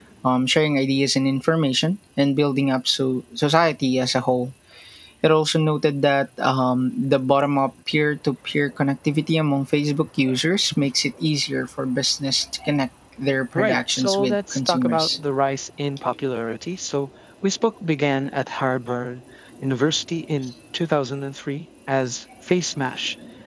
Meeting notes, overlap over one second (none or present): present